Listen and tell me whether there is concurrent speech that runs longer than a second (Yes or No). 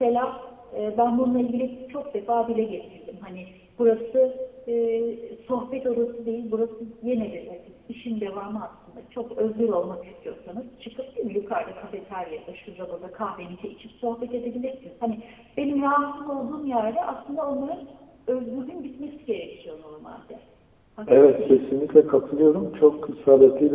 No